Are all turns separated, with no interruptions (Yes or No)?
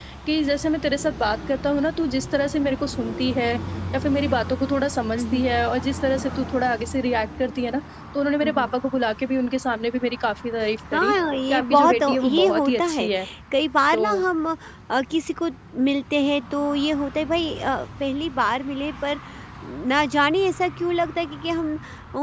No